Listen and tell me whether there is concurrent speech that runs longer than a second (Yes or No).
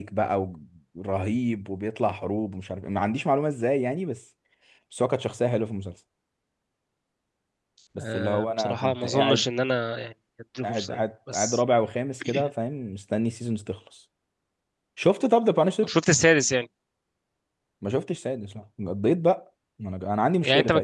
Yes